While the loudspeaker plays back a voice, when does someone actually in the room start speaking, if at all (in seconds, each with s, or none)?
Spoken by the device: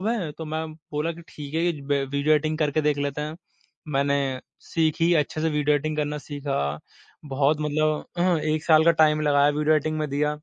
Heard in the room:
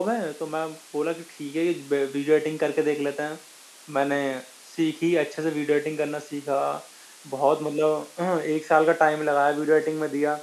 none